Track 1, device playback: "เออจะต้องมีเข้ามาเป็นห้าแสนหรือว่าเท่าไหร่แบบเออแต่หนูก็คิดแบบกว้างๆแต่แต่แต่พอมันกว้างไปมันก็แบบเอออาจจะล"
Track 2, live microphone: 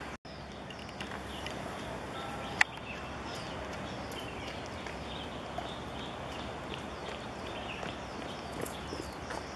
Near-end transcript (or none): none